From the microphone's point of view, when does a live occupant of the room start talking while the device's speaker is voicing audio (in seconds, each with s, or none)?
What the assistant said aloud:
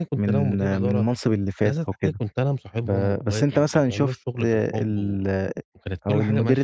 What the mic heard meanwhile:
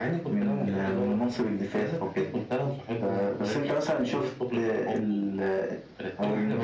0.6 s